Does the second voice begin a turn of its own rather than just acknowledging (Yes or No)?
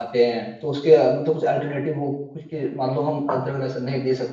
No